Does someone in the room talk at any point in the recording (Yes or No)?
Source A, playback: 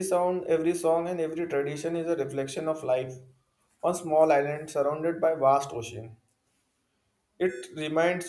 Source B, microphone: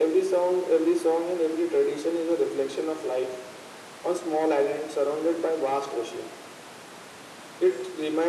No